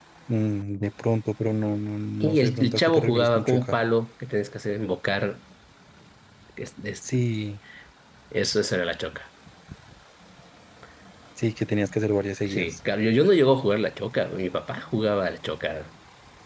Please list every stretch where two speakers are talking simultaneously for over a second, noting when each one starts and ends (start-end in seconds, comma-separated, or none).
2.2-3.8